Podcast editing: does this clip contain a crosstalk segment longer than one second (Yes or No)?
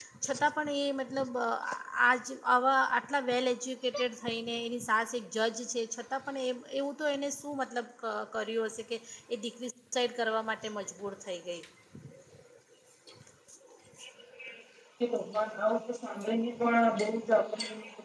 No